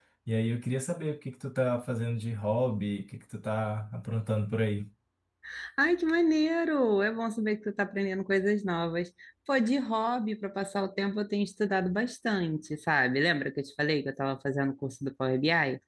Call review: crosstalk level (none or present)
none